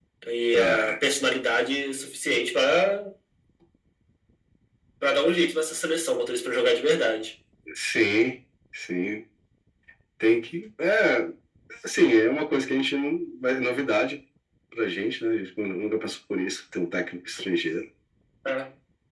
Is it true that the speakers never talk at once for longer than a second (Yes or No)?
Yes